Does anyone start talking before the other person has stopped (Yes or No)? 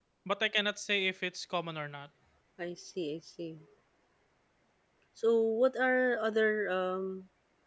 No